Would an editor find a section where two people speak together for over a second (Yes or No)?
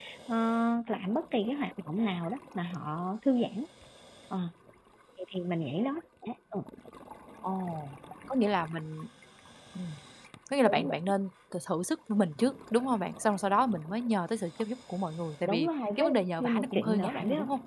Yes